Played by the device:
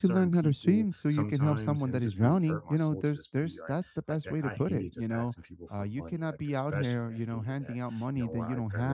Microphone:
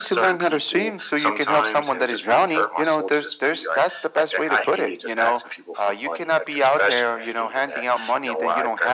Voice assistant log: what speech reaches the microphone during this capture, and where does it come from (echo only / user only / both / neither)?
echo only